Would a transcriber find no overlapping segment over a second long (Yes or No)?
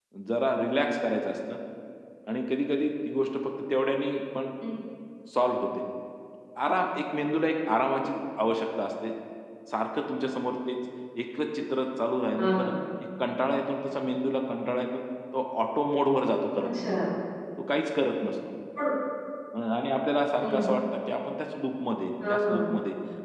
Yes